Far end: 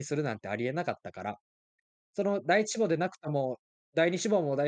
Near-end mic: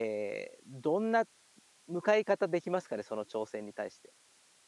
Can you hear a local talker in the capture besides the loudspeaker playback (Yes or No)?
Yes